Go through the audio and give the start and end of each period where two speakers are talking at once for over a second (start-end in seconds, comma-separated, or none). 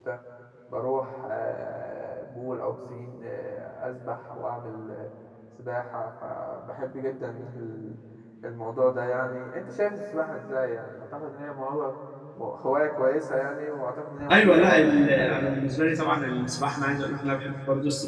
14.3-15.6